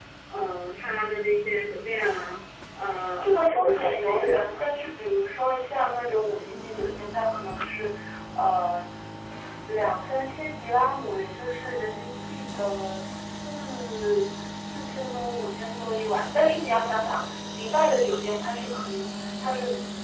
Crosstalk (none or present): present